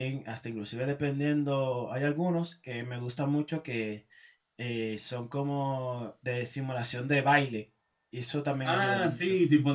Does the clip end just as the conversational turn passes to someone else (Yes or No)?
Yes